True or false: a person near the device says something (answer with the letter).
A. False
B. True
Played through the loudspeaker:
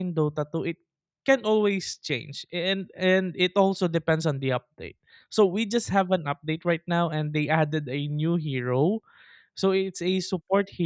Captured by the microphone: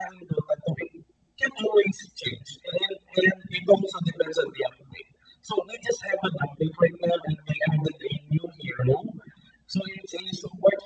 A